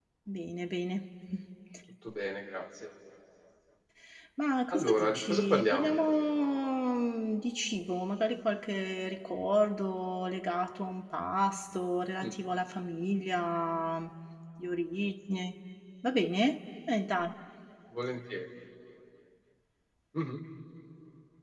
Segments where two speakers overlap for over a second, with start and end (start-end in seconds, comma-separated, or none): 4.7-6.0